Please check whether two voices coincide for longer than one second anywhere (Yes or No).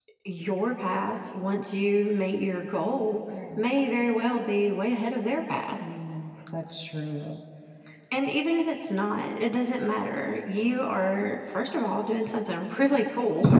No